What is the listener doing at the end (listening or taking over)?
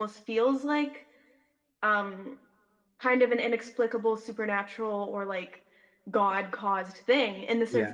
listening